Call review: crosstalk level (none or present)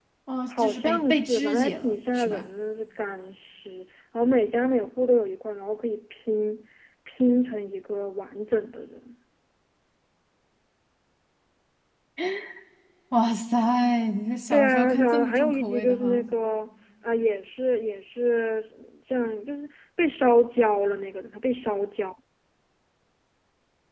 present